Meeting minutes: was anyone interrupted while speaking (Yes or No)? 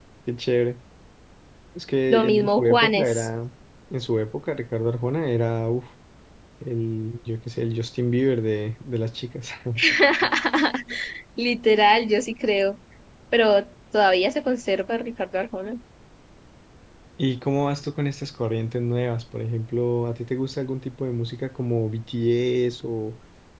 Yes